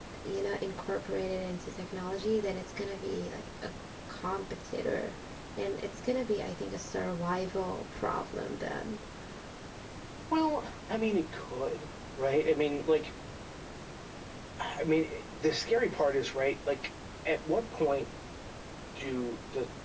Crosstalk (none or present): none